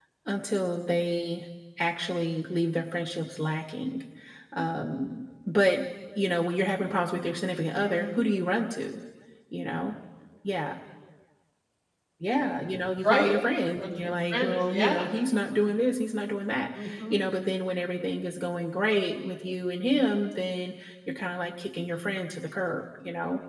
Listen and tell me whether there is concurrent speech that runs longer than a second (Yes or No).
Yes